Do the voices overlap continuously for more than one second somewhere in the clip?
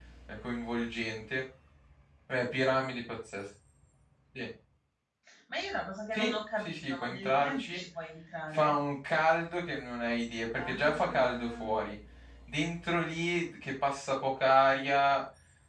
Yes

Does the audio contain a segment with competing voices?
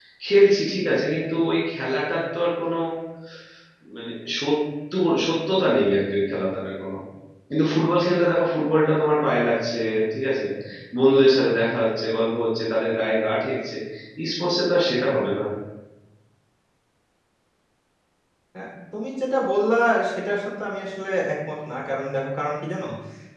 No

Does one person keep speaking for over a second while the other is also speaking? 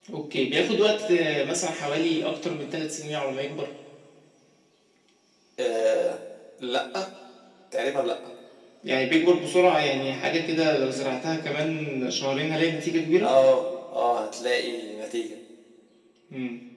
No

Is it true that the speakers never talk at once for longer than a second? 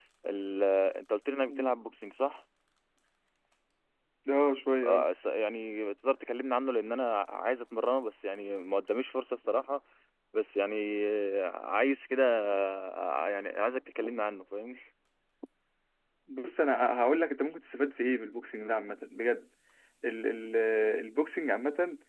Yes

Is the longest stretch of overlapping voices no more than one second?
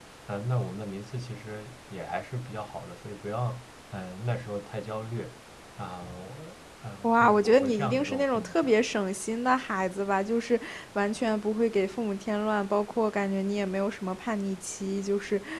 No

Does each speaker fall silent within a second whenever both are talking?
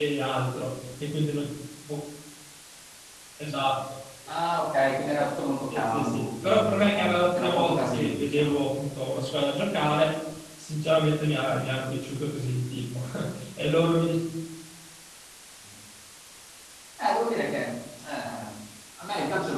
No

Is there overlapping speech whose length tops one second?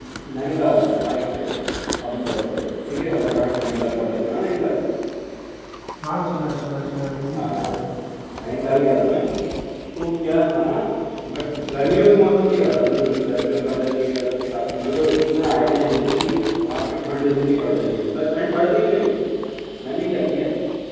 No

